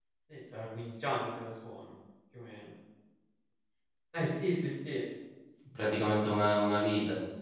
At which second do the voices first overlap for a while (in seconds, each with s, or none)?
none